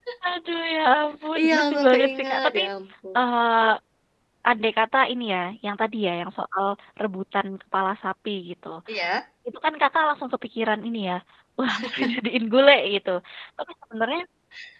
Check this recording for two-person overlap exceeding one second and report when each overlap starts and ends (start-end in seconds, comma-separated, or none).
1.4-2.6